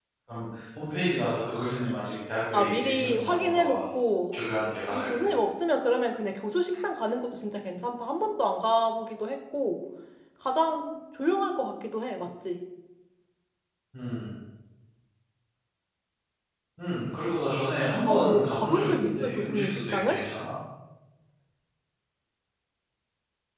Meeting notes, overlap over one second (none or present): present